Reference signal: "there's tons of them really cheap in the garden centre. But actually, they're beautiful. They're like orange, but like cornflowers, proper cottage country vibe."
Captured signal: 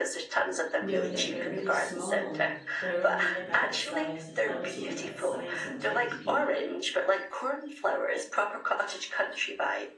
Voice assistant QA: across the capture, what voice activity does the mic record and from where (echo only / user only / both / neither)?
both